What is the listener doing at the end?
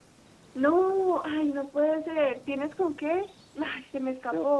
taking over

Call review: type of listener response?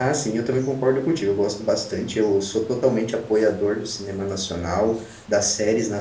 listening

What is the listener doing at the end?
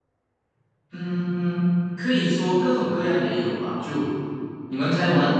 listening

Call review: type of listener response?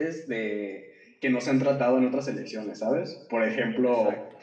listening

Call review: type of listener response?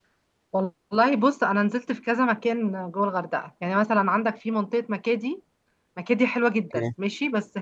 listening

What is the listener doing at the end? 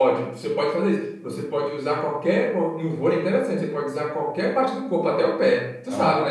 taking over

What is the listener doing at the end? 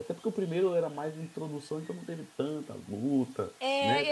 taking over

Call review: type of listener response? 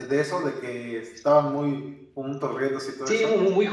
taking over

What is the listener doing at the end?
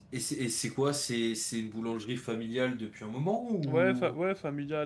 taking over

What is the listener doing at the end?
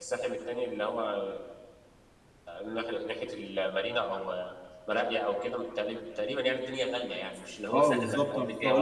taking over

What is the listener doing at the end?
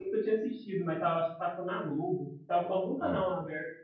listening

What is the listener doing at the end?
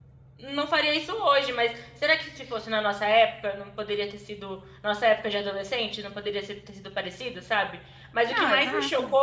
listening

